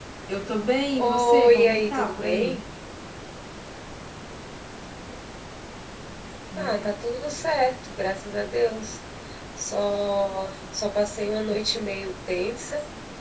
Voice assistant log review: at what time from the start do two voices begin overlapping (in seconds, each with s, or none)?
1.0 s